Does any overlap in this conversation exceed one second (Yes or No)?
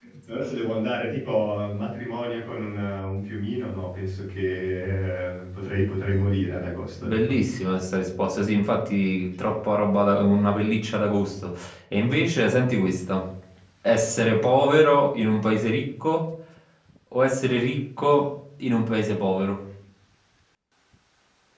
No